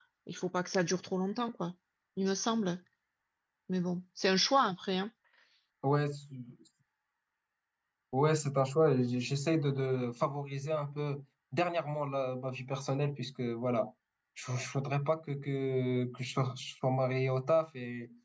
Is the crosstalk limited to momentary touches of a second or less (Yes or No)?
Yes